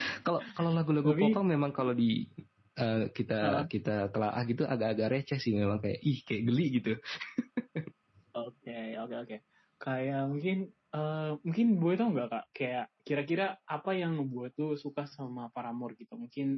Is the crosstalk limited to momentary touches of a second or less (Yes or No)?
Yes